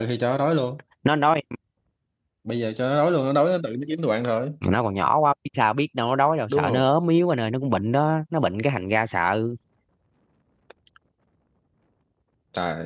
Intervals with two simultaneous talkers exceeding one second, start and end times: none

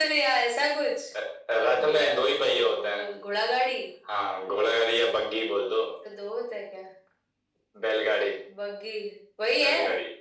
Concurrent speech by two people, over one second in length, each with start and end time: 1.8-3.0

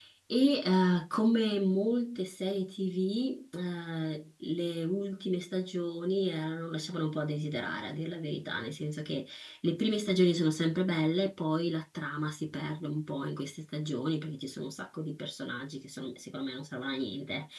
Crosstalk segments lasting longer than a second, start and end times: none

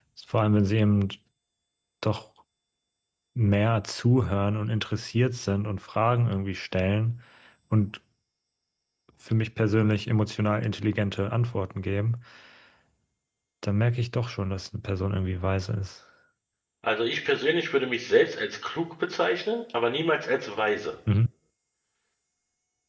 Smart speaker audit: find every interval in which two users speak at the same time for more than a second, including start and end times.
none

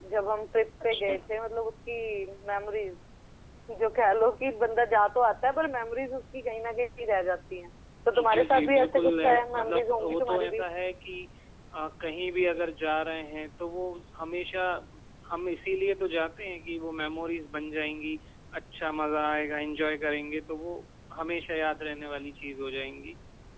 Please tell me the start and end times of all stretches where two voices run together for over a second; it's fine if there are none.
8.3-10.6

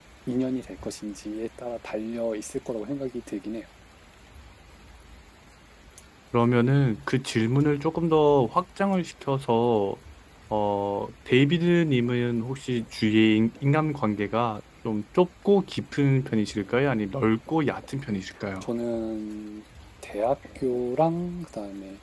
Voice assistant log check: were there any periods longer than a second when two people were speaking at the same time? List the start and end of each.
none

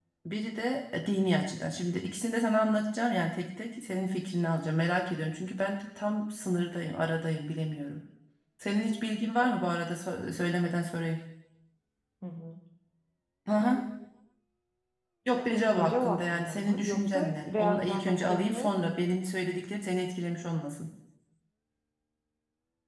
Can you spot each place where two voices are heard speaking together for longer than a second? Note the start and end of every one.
15.8-18.7

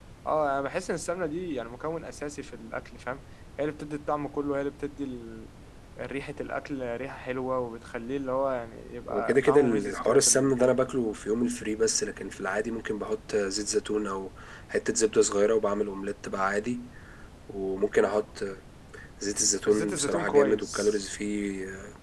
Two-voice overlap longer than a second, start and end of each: 9.1-10.7, 19.7-21.0

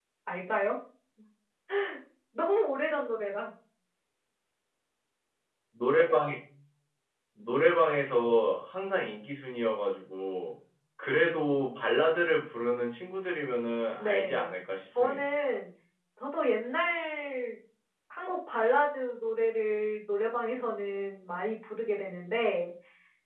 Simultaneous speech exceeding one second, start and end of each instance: none

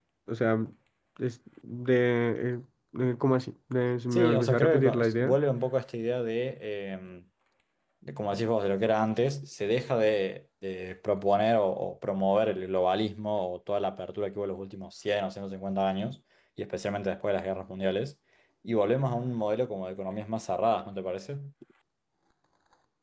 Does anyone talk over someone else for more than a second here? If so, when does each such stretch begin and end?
4.1-5.4

